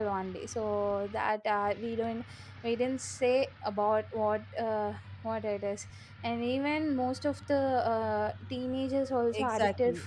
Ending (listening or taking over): taking over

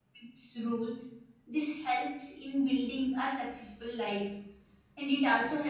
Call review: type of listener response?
listening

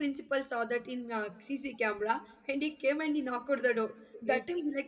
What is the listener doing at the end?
listening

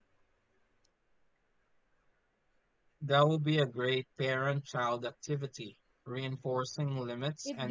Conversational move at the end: taking over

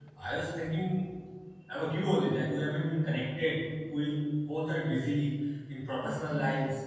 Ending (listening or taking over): taking over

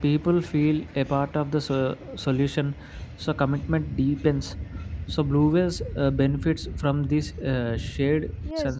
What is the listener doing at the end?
taking over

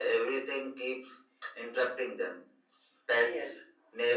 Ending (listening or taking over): listening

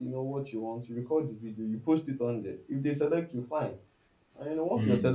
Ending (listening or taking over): listening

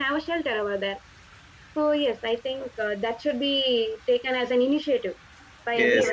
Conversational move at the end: taking over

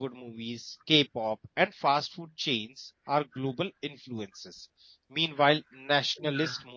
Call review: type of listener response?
listening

